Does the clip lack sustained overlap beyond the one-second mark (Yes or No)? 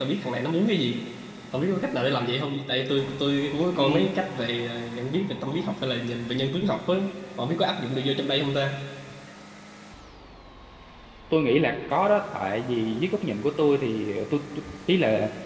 Yes